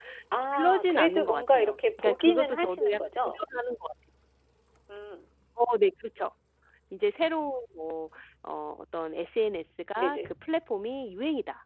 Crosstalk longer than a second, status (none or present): present